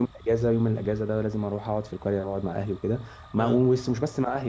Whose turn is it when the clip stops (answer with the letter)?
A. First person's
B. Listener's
A